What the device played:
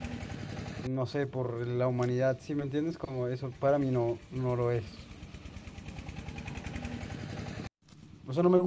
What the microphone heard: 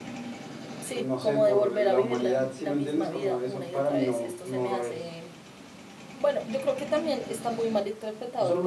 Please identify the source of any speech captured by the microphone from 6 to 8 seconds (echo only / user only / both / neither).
user only